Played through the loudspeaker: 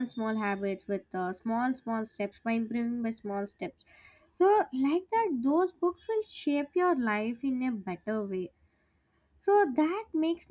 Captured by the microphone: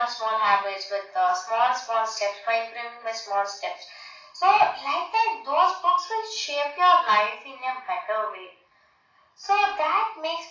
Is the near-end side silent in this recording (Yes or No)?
Yes